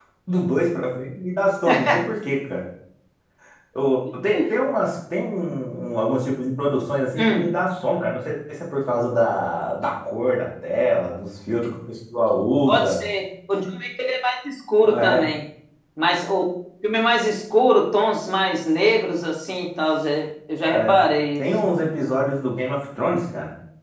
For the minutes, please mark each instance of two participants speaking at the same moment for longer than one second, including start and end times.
none

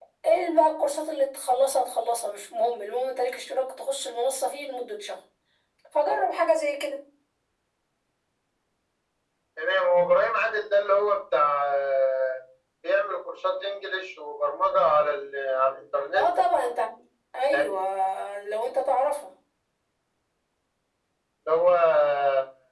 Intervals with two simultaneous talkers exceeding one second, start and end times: none

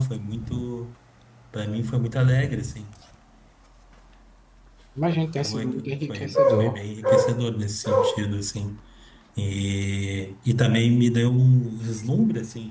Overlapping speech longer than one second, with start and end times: 5.4-6.8

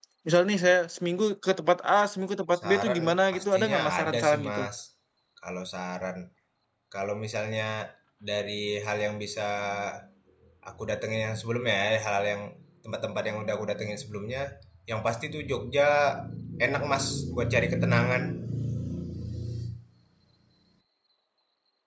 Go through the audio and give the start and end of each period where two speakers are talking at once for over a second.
2.6-4.6

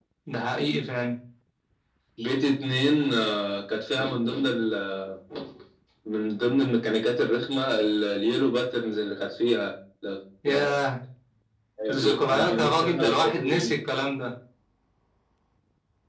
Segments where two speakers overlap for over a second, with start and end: 11.9-13.8

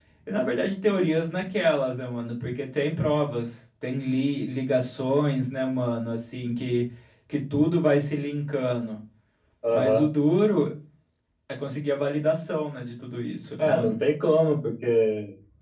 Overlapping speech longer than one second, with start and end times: none

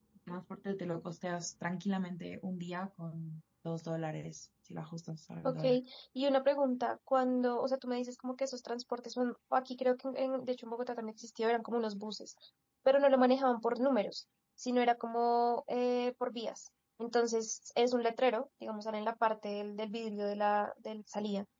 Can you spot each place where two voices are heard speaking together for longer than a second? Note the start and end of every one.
none

